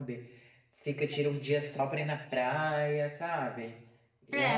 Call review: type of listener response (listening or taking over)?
taking over